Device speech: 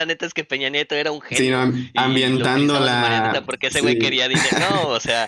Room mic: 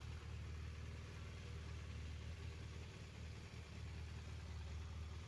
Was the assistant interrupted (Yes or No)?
No